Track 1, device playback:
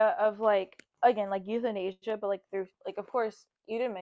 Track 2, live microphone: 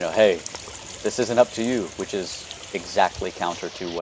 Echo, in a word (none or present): none